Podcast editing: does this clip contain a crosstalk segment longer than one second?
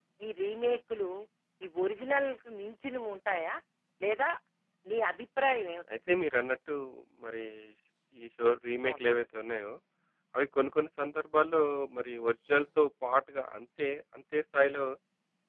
No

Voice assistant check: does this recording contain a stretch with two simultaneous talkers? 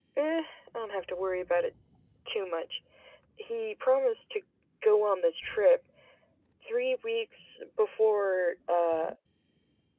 No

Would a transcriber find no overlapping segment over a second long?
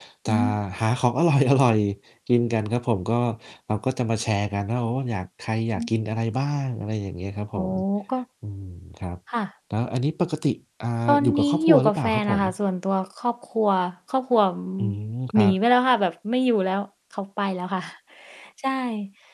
No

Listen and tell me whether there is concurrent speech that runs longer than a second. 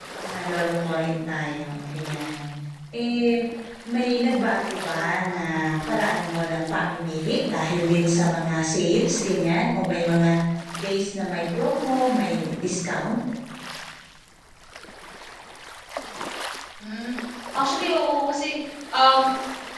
No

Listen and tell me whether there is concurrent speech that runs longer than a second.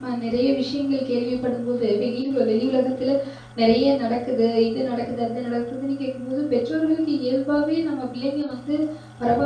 No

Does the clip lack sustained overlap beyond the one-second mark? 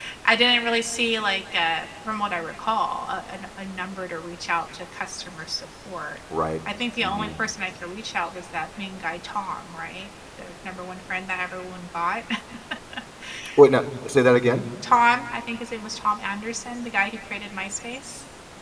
Yes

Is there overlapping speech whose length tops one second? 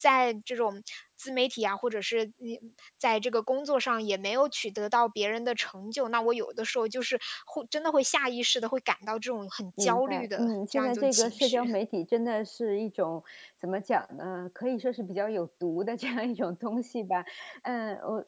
Yes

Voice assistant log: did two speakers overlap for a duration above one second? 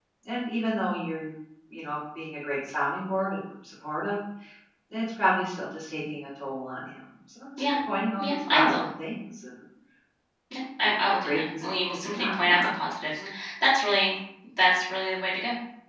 Yes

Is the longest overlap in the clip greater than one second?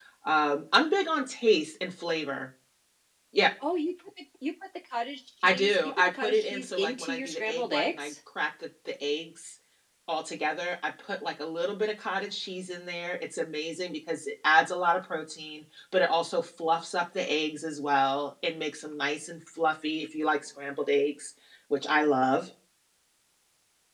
Yes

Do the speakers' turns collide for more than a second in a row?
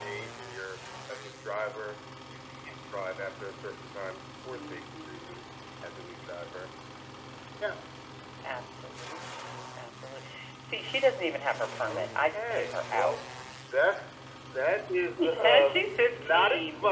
Yes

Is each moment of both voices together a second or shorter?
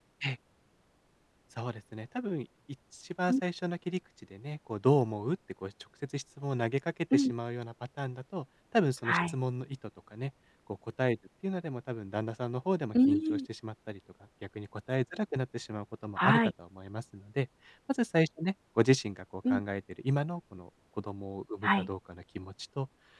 Yes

